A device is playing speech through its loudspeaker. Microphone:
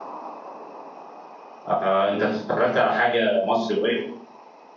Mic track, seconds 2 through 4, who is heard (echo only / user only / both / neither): user only